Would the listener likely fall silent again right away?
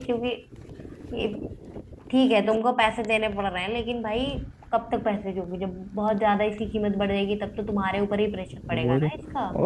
No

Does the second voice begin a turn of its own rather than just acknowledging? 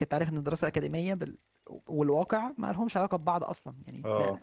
No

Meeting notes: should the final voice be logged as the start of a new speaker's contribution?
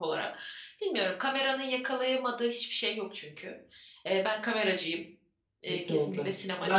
Yes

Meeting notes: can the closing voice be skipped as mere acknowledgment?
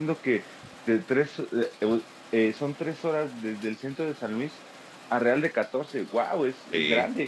No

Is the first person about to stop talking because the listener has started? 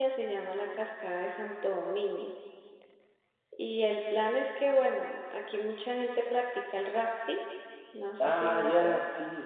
Yes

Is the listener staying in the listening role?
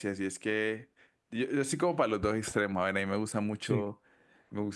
Yes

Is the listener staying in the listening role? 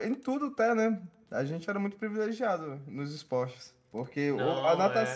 Yes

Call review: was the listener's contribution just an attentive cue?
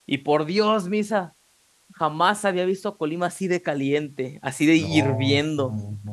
No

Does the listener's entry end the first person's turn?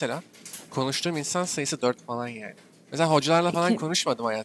No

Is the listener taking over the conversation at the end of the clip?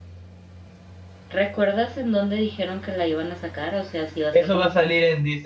Yes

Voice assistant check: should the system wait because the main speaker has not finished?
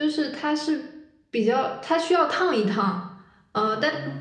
Yes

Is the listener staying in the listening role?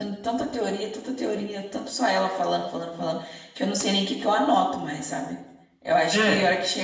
Yes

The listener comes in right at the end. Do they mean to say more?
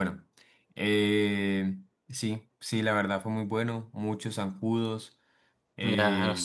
Yes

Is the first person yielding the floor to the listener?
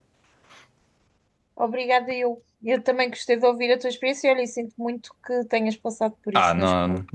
Yes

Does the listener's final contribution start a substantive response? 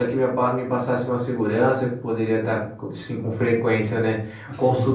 No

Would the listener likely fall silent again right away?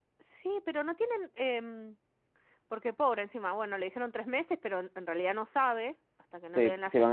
No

